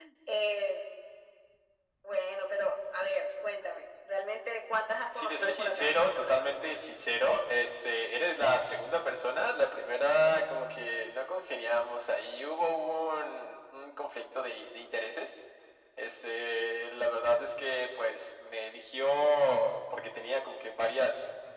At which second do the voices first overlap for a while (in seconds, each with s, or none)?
5.1 s